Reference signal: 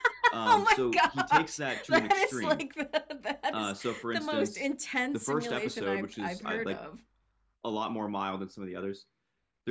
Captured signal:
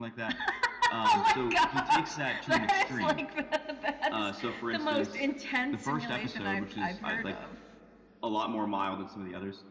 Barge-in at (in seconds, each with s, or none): none